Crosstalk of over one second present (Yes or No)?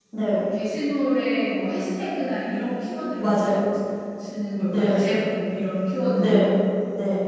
No